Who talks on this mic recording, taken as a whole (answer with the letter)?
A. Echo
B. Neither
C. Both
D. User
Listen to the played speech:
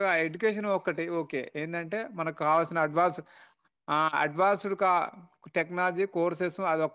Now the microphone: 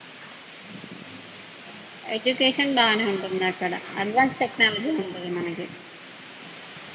D